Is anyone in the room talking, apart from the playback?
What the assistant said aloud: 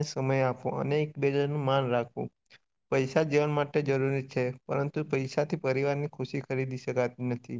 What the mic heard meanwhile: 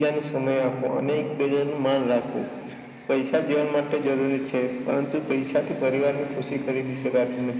No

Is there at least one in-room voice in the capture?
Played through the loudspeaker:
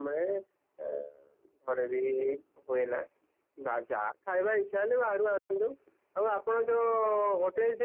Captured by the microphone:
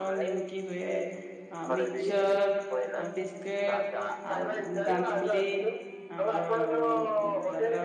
Yes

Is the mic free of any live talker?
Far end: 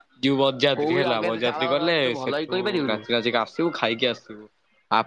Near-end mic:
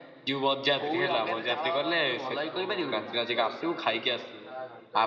No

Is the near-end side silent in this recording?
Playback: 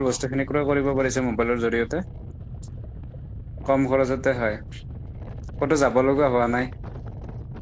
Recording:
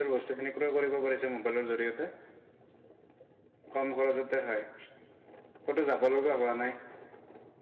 Yes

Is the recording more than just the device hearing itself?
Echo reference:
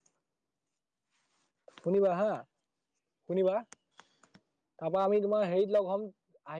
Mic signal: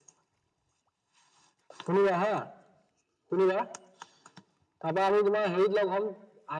No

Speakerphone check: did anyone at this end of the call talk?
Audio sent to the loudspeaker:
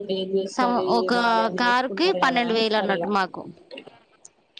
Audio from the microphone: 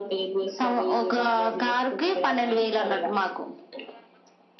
No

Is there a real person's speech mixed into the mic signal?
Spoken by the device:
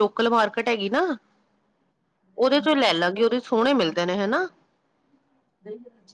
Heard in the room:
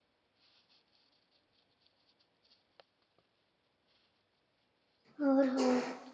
Yes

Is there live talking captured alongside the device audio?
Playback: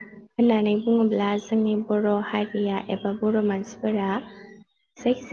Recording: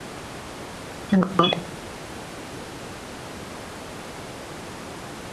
Yes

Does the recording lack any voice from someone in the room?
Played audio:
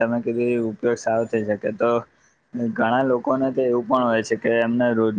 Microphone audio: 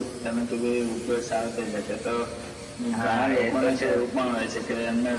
No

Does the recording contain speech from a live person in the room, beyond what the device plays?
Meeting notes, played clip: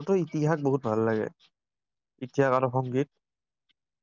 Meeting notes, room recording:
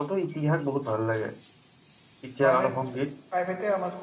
Yes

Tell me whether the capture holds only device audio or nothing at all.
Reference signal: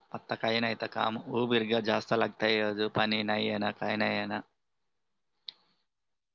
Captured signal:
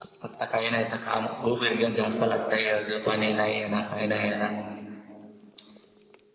Yes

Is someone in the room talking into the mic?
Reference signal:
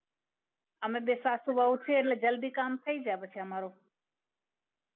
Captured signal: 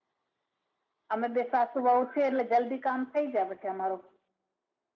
No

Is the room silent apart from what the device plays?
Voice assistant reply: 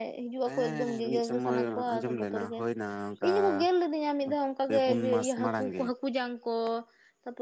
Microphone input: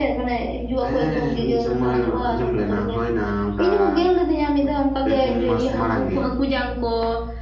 Yes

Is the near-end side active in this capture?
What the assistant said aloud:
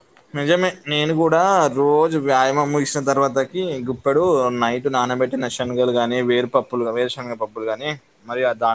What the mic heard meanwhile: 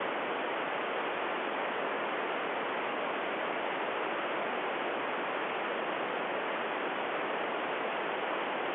No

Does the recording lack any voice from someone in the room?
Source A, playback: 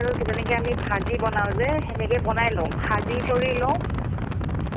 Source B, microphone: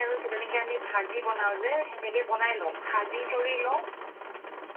Yes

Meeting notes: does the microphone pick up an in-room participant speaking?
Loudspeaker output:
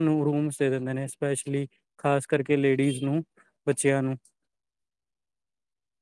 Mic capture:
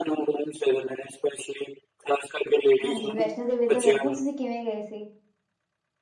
Yes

